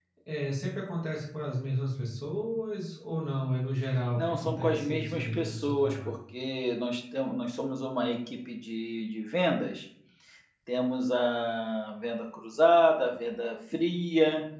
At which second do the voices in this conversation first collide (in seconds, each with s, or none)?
4.2 s